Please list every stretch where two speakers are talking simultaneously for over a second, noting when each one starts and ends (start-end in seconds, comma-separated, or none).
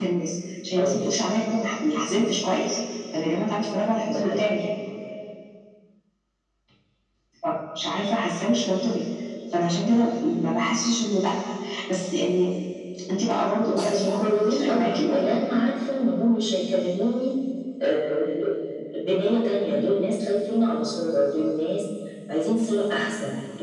13.7-15.4